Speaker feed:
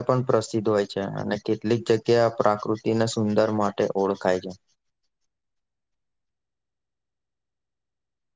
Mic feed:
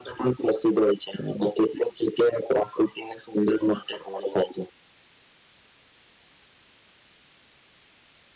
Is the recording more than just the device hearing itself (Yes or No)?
No